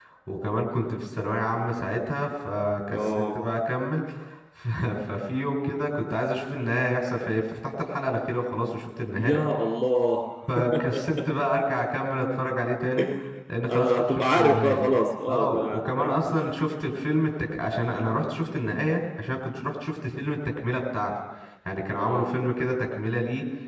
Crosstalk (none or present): present